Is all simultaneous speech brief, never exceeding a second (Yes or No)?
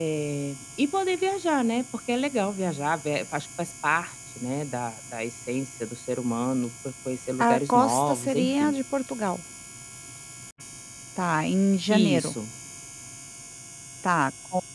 No